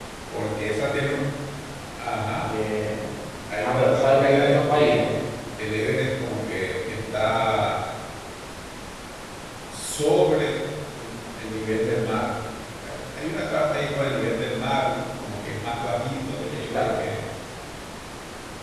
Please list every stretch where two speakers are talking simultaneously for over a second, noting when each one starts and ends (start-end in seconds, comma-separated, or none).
3.6-5.1